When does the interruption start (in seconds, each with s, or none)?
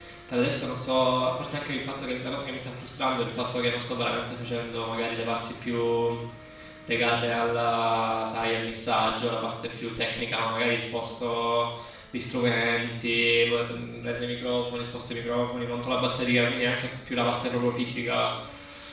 none